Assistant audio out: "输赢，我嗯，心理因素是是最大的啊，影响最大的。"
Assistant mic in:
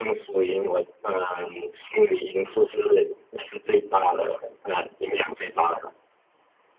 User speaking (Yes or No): No